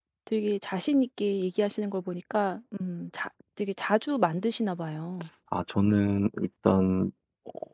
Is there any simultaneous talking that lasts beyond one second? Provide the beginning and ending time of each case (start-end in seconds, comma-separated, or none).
none